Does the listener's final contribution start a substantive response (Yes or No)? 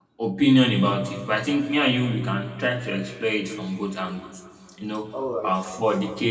No